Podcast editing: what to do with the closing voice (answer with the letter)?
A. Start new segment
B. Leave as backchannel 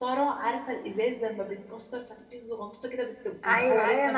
A